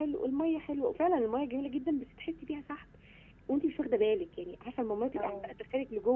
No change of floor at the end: Yes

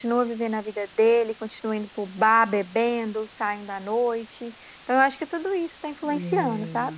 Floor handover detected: Yes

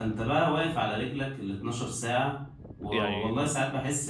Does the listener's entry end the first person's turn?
No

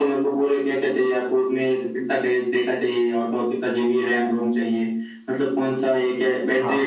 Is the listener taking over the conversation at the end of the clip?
No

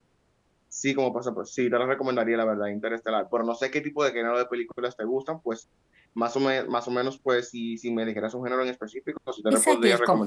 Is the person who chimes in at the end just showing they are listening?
No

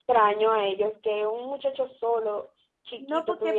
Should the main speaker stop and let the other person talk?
Yes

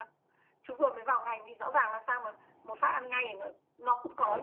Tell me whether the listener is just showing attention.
No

